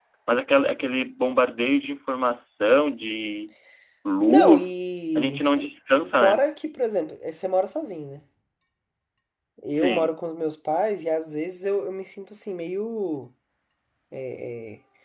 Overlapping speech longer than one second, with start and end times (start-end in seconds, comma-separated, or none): none